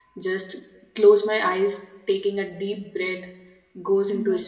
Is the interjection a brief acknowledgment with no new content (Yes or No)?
Yes